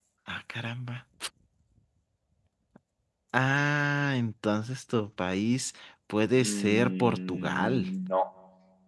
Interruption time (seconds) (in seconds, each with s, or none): 6.3 s